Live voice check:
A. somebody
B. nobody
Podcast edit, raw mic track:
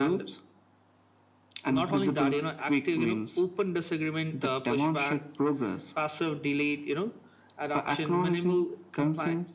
B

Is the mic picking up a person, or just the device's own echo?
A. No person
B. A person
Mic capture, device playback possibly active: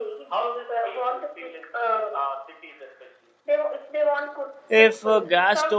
B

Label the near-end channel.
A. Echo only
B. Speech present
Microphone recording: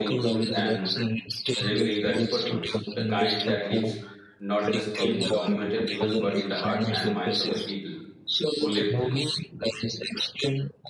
B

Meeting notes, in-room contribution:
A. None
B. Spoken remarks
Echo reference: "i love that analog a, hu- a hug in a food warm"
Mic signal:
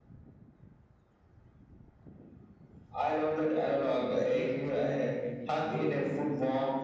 B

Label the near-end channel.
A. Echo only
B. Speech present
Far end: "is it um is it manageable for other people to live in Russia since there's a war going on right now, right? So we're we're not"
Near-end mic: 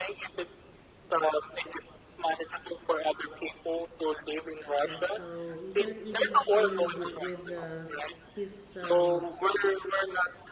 B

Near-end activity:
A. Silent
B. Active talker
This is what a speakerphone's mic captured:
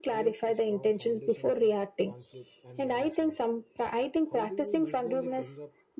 B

